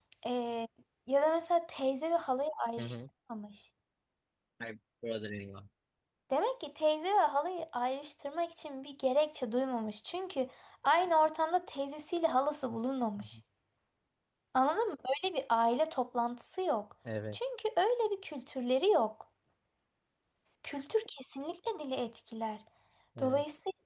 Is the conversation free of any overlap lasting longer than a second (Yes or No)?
Yes